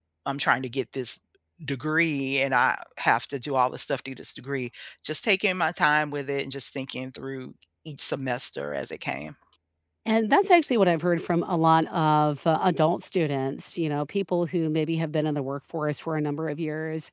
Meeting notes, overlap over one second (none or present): none